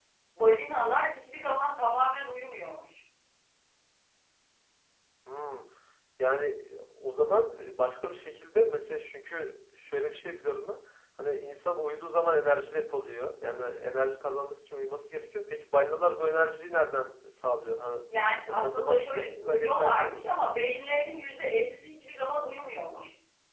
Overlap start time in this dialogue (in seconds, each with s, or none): 18.5 s